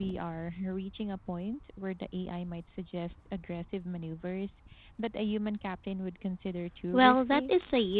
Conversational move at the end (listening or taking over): taking over